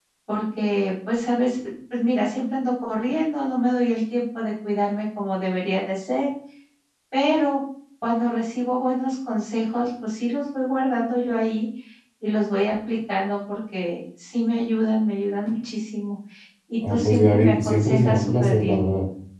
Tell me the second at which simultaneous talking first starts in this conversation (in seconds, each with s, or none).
16.9 s